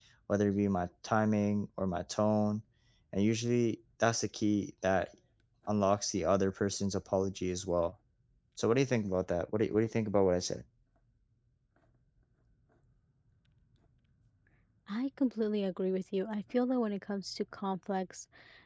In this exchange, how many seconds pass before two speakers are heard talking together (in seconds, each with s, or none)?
none